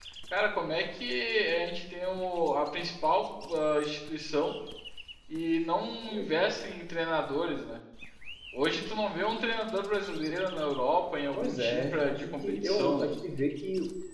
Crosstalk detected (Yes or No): Yes